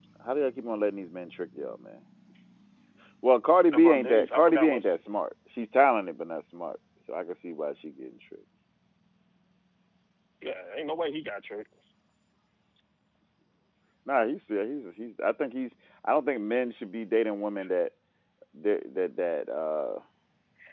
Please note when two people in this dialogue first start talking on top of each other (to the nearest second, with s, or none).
4 s